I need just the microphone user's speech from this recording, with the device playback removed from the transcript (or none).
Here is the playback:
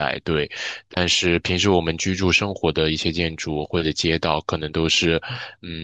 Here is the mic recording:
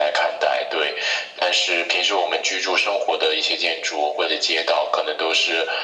none